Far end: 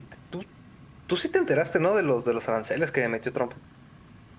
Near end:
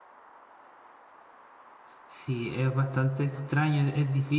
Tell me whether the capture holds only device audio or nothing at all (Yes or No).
No